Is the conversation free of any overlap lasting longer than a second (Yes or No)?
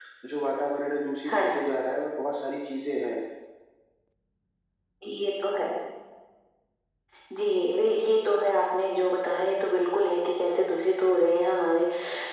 Yes